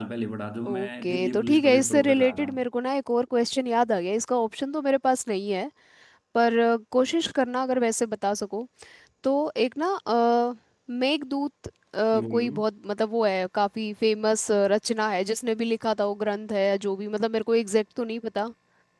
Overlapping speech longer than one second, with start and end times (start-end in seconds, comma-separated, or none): 0.7-2.5